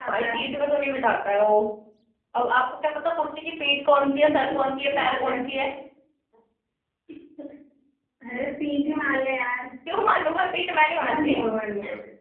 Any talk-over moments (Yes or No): Yes